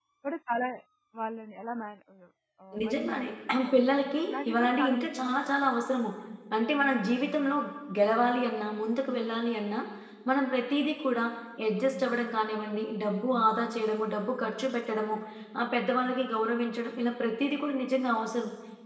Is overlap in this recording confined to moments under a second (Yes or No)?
No